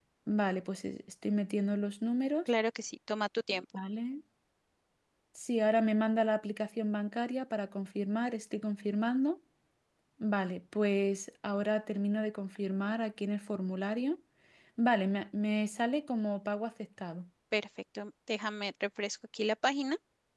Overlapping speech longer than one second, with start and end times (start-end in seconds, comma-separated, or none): none